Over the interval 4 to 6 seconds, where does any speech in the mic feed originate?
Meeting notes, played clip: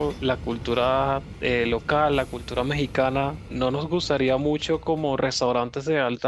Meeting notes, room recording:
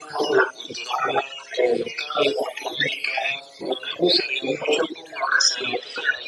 echo only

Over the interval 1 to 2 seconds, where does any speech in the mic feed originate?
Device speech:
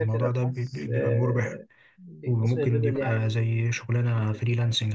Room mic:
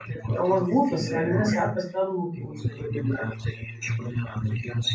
both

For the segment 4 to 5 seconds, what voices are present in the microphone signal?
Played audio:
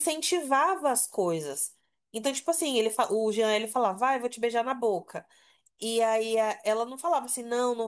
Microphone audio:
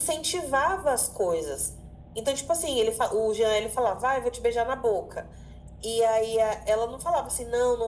echo only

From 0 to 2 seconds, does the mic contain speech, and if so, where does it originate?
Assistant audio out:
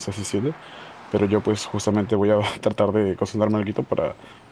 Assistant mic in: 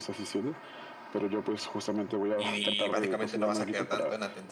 echo only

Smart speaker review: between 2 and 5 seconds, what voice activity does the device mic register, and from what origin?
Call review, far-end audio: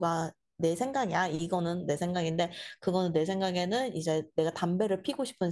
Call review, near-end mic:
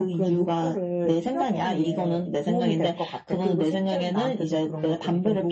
both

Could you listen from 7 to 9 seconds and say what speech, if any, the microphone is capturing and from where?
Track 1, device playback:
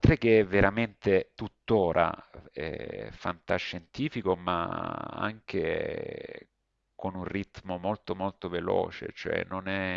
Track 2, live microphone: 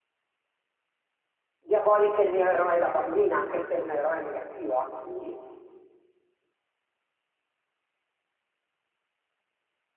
neither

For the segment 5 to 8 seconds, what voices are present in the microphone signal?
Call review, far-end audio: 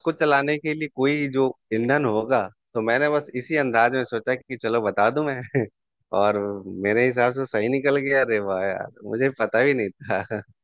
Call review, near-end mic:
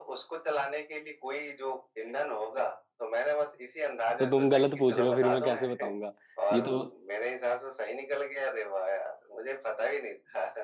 both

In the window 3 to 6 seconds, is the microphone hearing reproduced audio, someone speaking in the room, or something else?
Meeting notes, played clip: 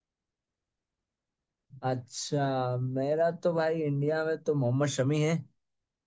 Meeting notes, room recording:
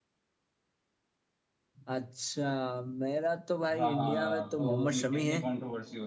both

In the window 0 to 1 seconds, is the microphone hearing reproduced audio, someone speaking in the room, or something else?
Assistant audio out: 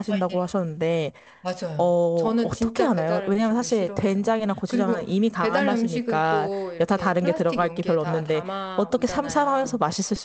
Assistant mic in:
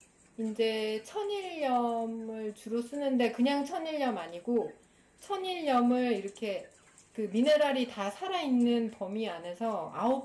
user only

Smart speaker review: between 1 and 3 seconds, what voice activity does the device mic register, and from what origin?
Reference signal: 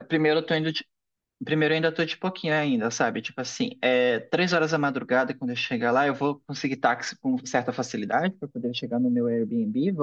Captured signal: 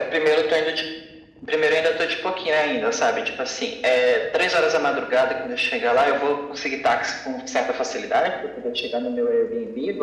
echo only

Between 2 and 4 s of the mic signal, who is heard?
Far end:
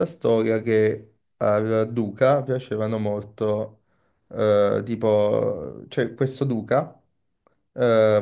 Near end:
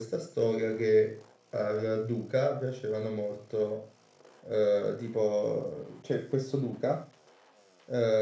echo only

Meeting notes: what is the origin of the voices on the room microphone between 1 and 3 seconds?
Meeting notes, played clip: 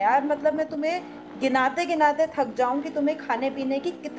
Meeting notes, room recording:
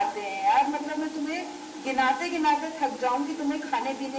echo only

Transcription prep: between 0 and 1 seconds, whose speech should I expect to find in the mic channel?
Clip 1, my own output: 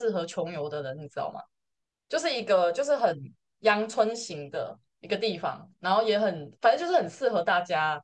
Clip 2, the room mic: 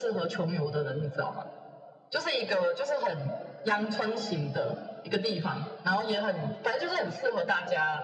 echo only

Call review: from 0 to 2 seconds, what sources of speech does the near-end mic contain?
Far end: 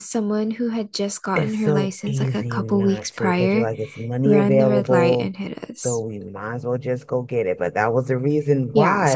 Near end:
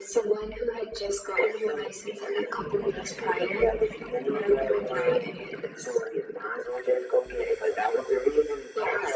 echo only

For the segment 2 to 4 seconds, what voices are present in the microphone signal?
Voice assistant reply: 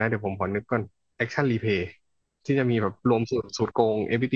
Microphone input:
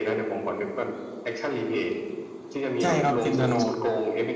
both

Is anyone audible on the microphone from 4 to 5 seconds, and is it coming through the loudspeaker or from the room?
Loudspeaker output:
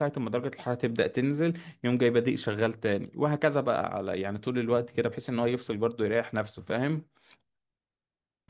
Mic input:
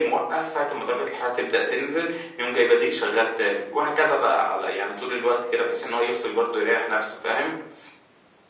echo only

